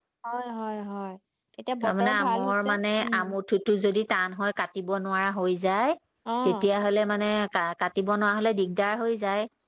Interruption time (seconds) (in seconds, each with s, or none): 1.8 s